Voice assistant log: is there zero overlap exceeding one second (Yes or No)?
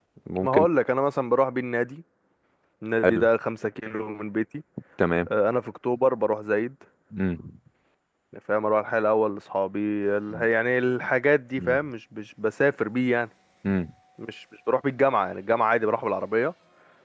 Yes